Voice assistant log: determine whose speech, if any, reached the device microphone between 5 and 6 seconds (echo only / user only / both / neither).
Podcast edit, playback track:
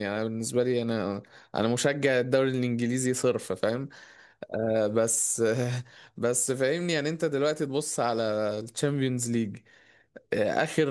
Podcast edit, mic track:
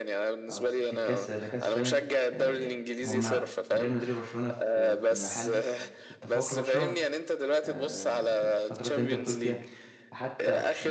both